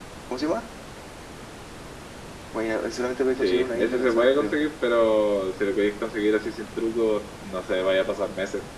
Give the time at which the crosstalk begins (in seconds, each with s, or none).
3.4 s